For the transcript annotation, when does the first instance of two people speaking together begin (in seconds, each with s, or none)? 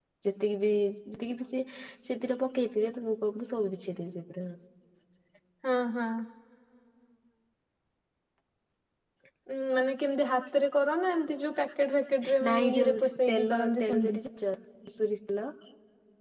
12.2 s